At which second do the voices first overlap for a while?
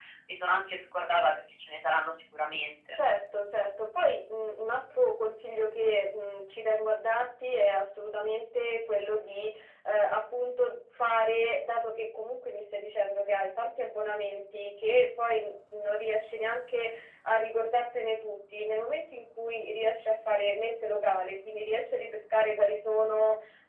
none

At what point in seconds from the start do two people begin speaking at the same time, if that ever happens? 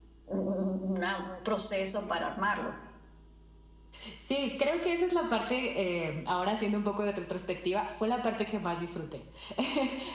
none

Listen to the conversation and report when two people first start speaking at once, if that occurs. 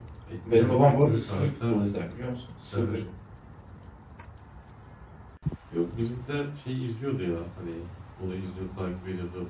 0.5 s

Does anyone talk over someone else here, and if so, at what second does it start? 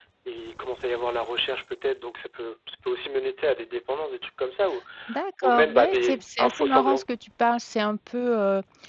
5.4 s

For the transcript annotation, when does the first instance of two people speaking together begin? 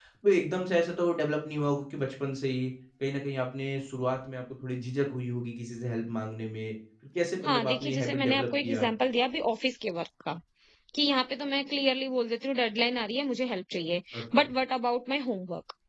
7.4 s

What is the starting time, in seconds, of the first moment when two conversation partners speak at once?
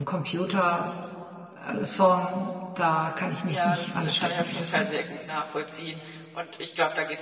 3.5 s

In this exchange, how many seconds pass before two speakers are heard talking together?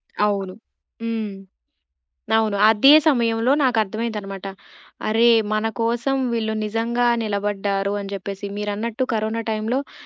none

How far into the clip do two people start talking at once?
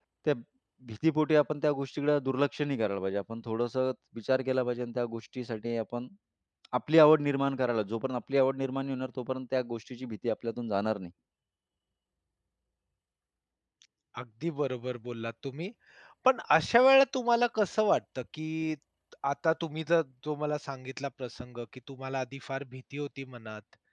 none

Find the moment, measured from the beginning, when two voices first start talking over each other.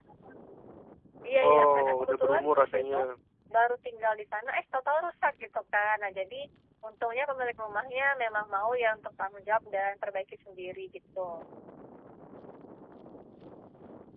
1.5 s

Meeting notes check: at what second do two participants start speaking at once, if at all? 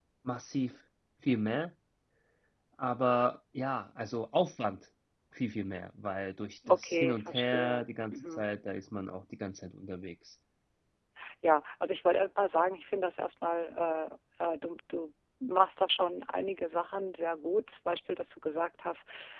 6.7 s

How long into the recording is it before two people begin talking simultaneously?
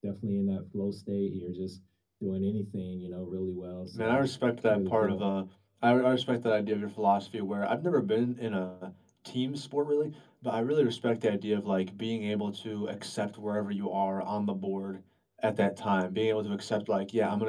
4.0 s

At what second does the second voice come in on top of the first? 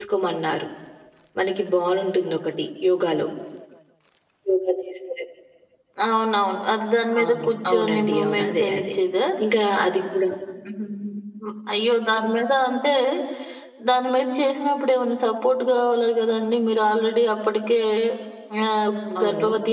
7.2 s

